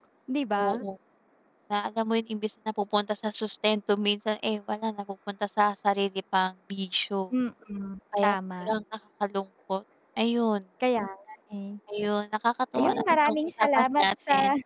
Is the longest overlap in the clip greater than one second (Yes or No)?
Yes